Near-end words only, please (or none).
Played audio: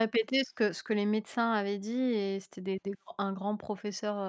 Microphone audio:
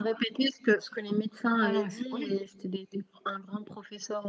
ah non, mais c'est horrible.